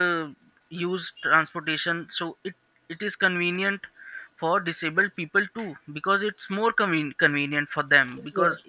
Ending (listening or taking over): listening